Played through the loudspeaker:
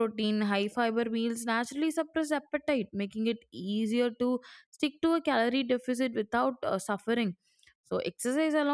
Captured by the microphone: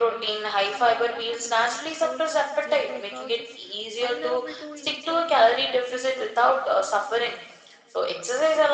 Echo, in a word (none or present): present